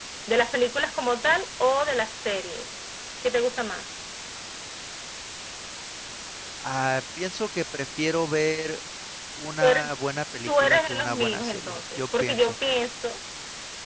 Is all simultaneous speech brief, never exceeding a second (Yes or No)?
No